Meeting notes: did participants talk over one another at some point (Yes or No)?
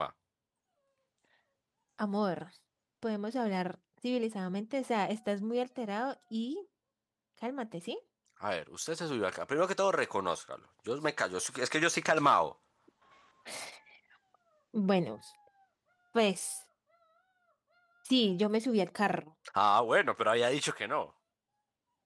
No